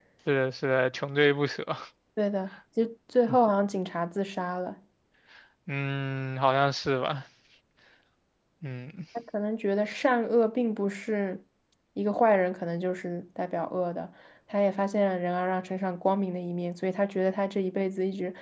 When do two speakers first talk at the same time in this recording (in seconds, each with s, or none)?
none